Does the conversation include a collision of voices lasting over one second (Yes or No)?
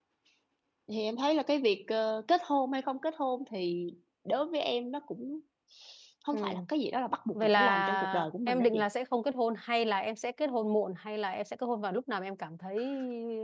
Yes